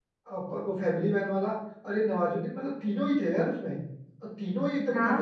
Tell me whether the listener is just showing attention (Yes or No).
No